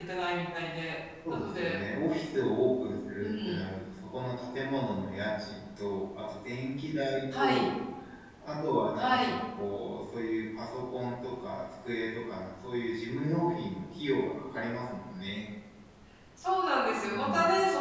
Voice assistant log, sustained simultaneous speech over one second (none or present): none